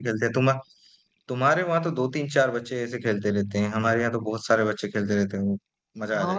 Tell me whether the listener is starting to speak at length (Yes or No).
Yes